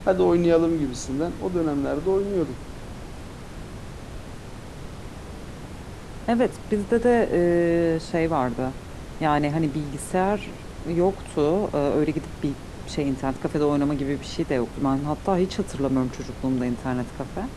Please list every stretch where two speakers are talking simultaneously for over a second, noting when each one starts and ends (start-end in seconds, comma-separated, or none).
none